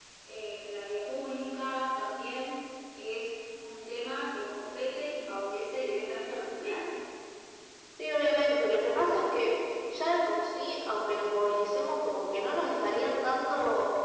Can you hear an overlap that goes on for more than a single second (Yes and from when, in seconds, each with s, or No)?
No